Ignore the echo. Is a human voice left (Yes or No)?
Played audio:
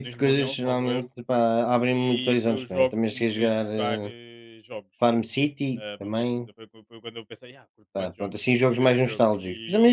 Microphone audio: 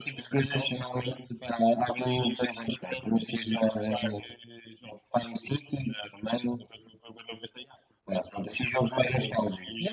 No